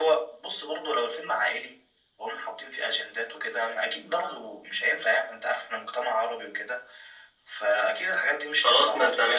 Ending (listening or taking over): taking over